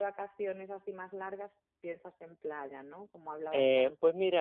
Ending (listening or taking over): taking over